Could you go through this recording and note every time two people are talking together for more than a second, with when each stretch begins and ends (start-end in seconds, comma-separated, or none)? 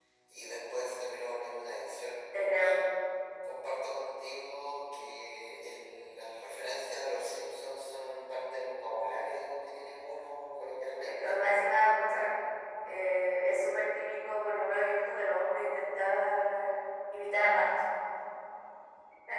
none